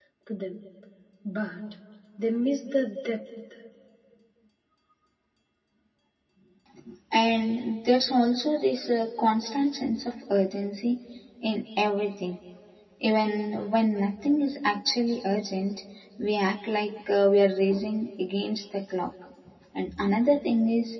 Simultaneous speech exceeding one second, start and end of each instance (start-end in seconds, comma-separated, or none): none